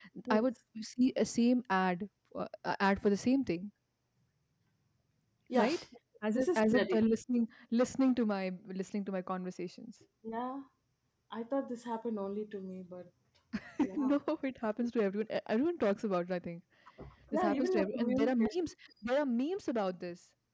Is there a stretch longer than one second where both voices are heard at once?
Yes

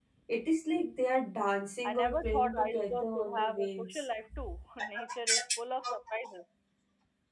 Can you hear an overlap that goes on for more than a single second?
Yes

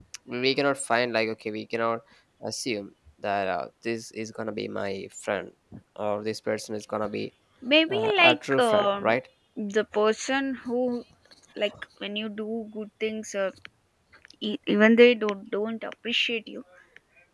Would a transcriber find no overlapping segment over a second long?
No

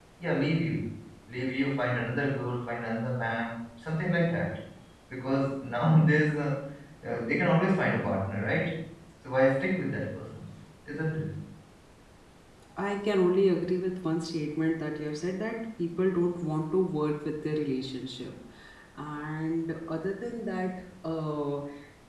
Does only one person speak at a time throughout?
Yes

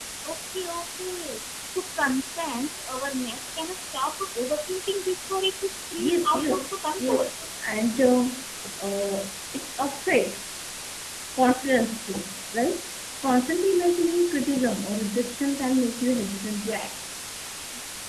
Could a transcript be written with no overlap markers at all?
No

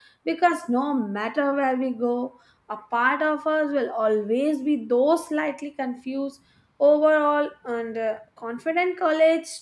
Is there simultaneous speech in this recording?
No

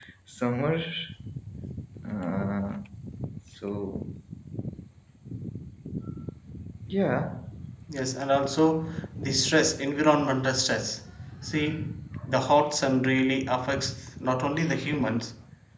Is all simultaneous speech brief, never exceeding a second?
Yes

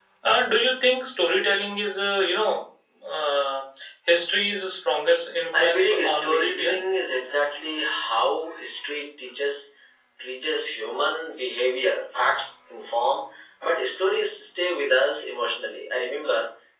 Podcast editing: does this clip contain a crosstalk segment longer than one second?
Yes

